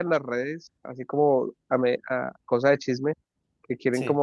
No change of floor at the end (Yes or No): Yes